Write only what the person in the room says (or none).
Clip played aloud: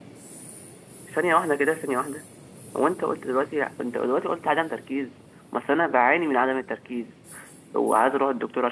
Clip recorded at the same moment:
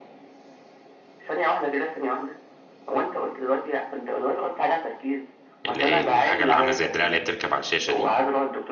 اللي هي الحاجه اللي عامله زي الدراع اللي هي بتركب على الشاشه دي